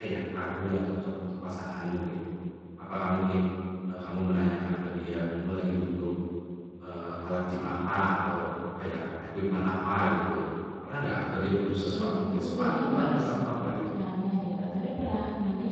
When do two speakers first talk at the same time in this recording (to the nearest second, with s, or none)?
12 s